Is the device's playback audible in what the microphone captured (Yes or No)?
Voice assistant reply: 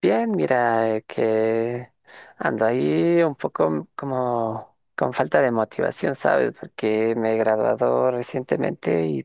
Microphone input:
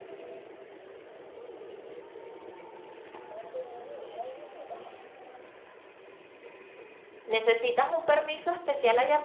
No